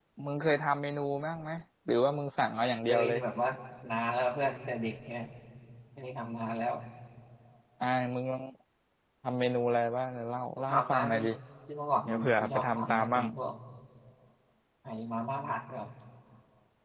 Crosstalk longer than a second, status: present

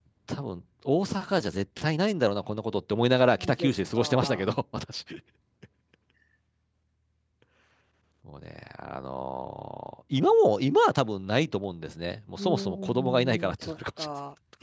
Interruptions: present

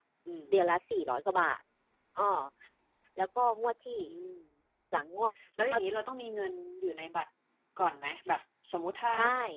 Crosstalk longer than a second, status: none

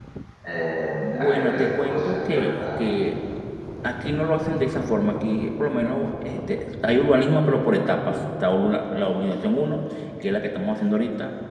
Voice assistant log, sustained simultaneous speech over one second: present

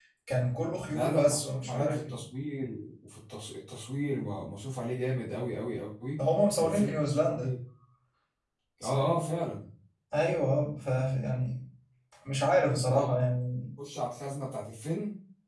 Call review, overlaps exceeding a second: present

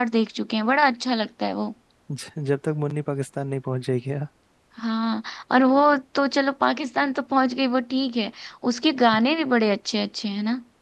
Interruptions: none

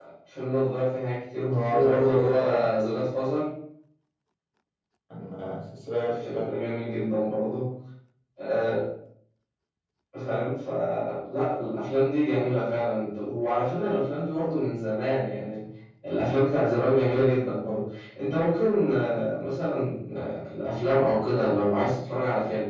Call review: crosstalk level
present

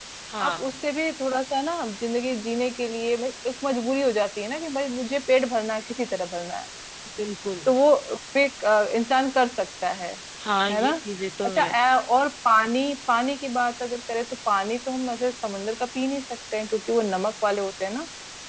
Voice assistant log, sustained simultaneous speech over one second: none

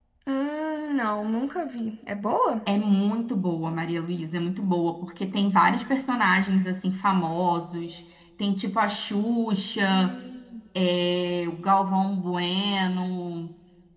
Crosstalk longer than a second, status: none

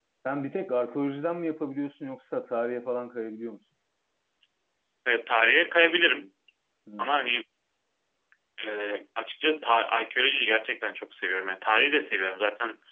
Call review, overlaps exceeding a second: none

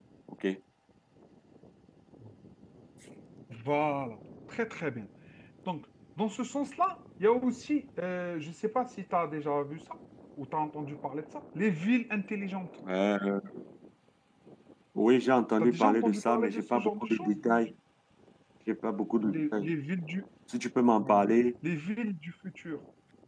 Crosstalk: present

